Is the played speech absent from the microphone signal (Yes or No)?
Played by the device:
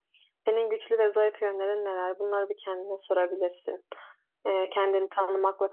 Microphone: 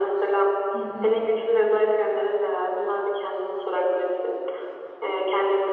No